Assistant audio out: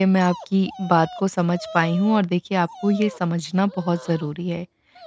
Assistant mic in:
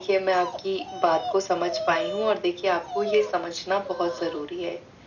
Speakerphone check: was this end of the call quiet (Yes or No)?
Yes